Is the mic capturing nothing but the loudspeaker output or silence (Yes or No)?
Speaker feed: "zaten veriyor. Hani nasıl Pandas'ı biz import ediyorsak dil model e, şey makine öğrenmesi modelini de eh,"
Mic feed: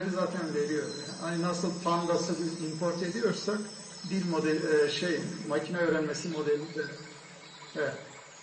Yes